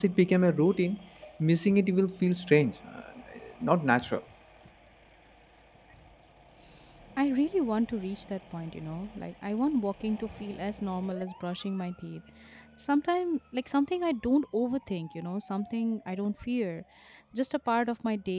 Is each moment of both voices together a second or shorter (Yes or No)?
Yes